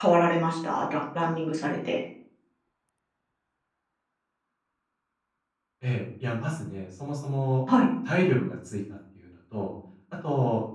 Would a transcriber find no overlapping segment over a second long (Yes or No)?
Yes